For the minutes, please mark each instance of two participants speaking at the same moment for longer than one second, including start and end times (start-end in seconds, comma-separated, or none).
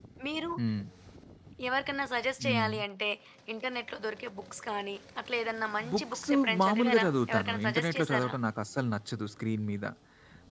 5.9-8.3